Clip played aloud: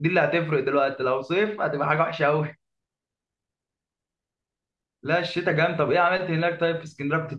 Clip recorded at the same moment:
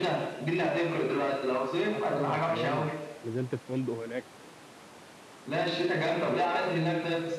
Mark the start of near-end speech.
1.8 s

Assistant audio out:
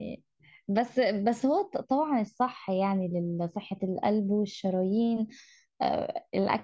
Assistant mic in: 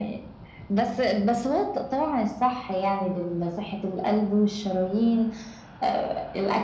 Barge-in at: none

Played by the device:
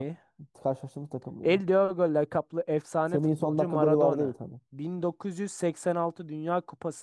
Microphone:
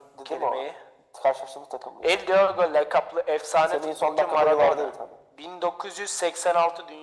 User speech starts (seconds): none

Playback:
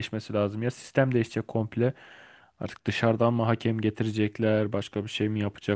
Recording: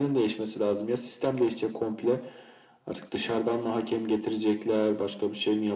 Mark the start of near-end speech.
none

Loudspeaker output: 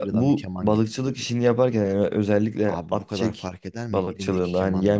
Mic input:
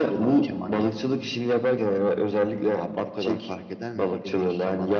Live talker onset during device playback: none

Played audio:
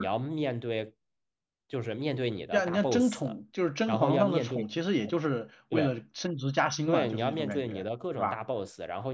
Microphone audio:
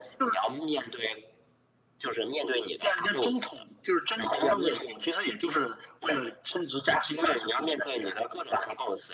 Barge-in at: none

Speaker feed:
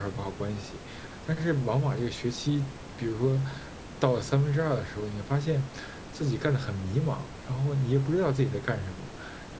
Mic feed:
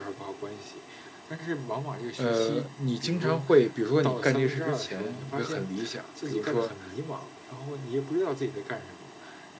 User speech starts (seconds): 2.2 s

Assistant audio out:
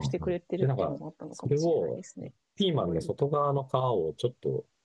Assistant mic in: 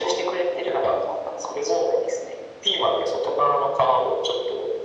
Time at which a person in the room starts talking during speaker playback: none

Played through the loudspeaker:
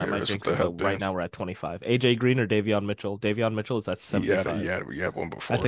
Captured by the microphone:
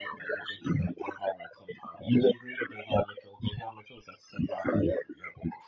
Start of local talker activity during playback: none

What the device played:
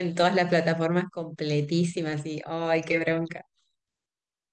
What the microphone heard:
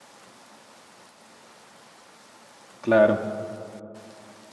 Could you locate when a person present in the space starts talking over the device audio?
2.8 s

